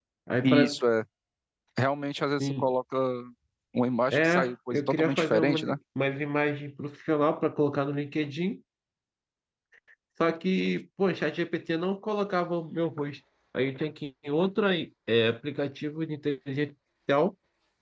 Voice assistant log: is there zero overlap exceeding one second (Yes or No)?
No